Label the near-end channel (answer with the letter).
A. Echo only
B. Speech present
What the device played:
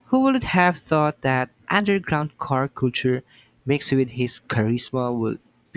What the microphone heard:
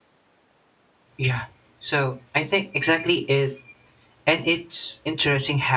B